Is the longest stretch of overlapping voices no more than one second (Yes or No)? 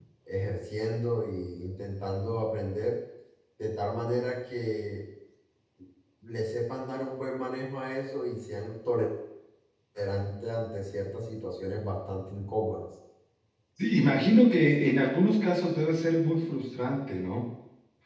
Yes